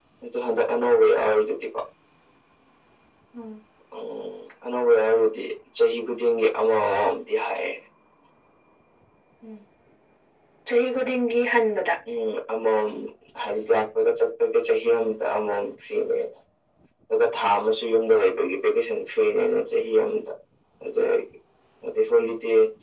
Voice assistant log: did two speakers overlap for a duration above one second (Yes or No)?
No